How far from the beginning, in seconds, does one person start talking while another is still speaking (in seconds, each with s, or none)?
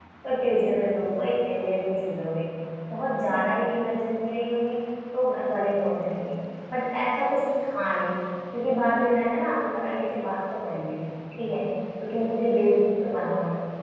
none